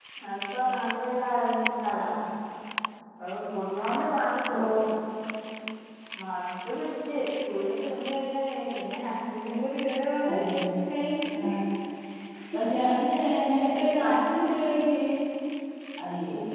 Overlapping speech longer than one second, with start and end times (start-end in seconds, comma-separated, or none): none